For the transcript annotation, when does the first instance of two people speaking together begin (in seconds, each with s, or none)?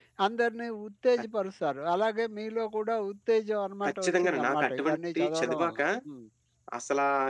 3.8 s